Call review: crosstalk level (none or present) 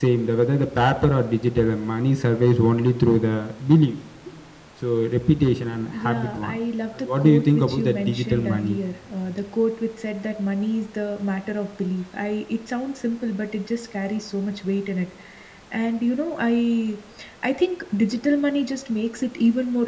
present